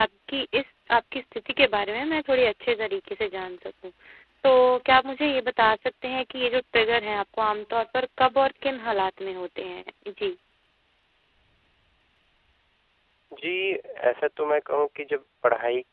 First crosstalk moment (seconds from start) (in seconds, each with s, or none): none